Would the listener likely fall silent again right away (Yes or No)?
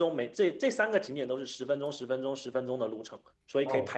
No